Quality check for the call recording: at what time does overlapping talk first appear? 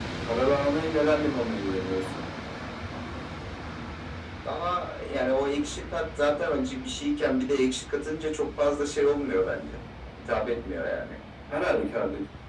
none

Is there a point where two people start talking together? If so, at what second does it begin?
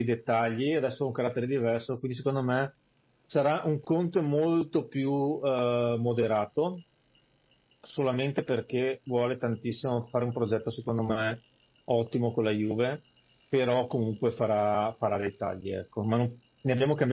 none

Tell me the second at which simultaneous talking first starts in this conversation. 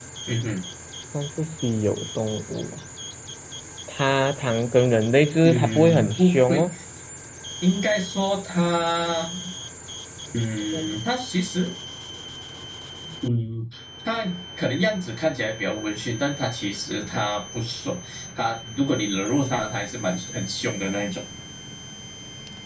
5.4 s

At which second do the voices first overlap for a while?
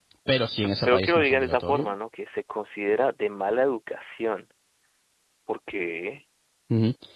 0.6 s

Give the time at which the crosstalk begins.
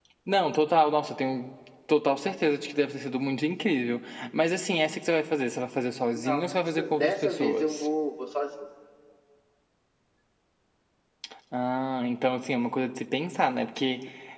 6.2 s

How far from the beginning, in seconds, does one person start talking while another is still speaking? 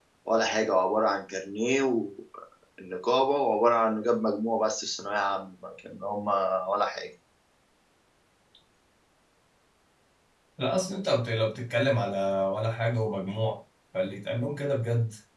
none

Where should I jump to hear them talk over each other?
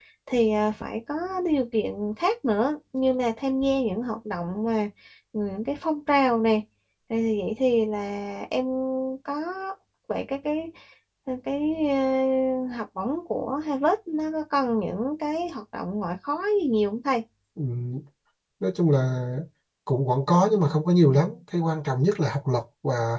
none

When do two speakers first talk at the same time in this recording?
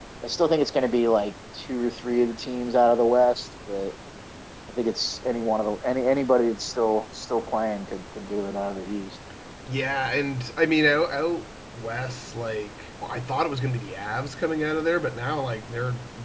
none

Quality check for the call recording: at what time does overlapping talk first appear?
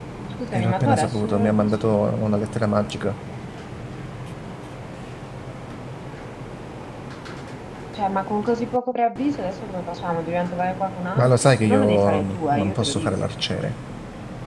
0.5 s

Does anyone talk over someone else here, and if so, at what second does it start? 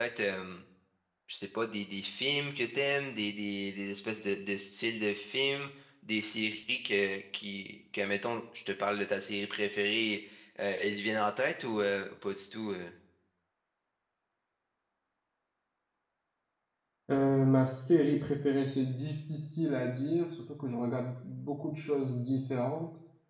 none

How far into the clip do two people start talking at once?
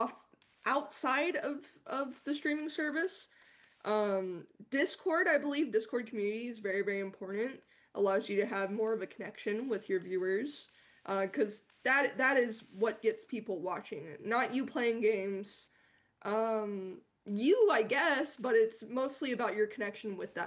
none

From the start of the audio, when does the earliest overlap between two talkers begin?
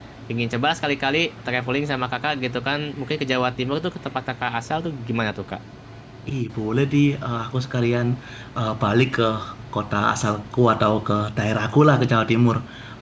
none

